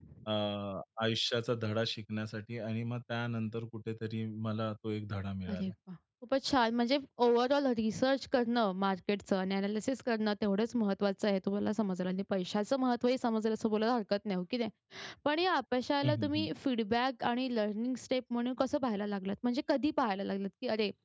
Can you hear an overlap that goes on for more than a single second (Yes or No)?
No